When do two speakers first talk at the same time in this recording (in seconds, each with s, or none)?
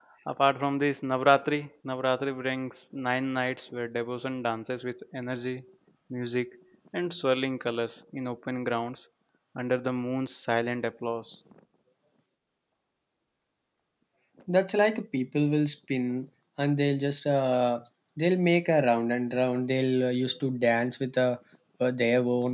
none